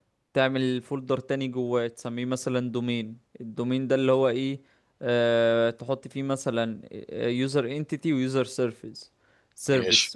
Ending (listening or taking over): listening